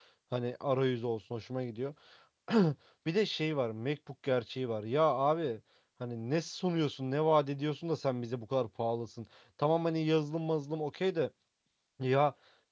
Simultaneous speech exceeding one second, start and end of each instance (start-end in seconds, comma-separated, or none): none